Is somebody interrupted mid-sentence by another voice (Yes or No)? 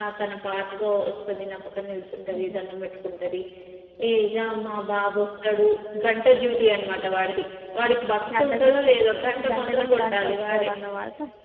Yes